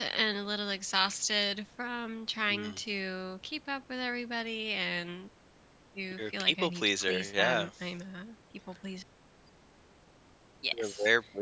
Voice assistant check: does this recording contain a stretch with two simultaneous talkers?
Yes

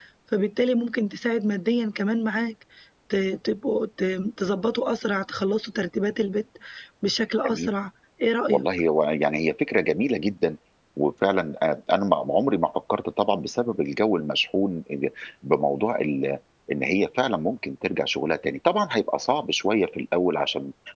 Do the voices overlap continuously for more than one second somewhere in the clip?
No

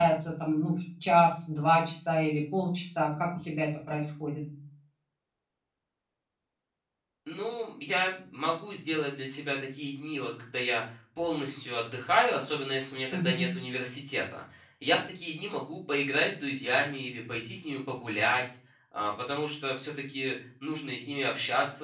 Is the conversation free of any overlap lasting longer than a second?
Yes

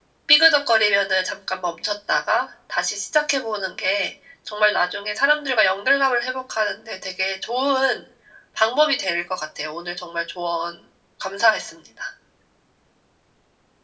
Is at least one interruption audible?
No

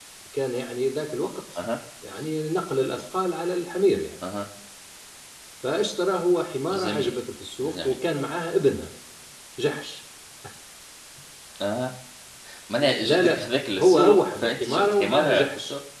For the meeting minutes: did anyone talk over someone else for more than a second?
Yes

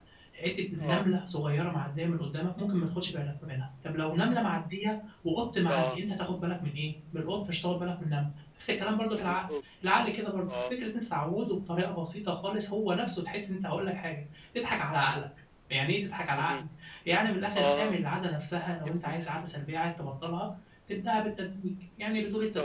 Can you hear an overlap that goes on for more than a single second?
No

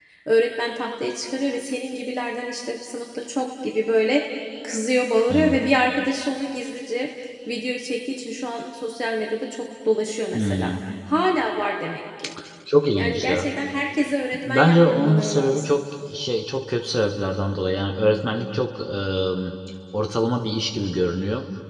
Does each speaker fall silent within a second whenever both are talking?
No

